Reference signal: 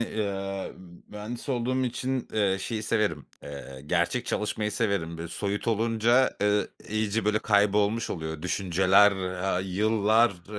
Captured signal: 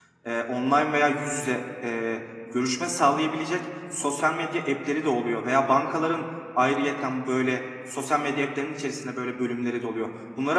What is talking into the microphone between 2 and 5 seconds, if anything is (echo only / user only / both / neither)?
user only